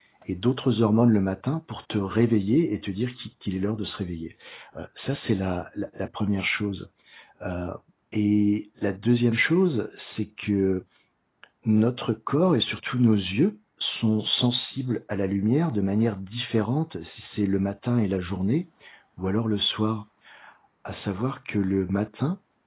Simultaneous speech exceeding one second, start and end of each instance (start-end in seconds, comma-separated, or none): none